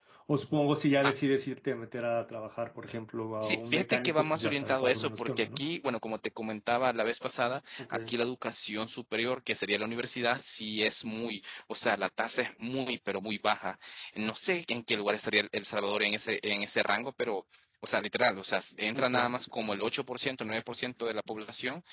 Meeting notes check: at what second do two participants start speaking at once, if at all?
3.4 s

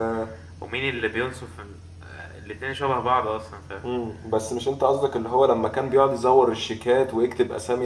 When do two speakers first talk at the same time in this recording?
none

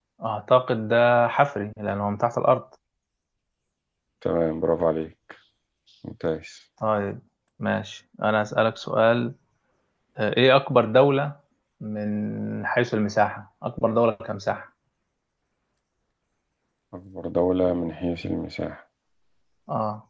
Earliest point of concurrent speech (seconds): none

